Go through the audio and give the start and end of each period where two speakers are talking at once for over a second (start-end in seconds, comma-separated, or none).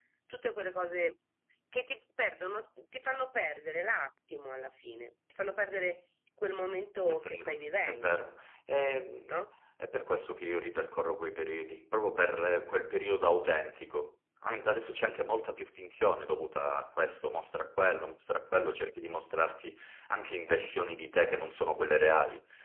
7.0-8.3